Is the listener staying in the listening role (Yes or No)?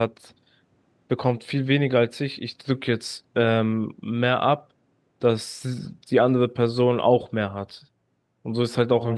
No